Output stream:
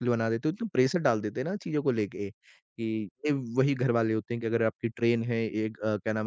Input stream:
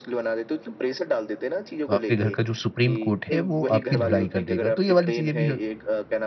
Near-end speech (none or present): present